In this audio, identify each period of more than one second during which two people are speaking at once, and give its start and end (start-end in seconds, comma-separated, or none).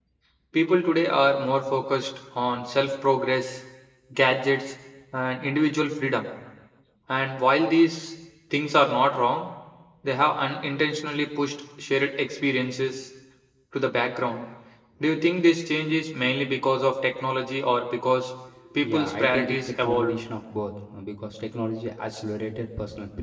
18.8-20.2